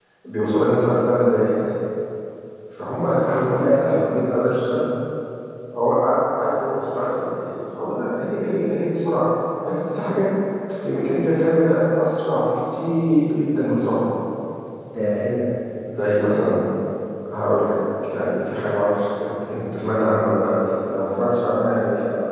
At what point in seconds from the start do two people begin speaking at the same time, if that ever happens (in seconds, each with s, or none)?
3.1 s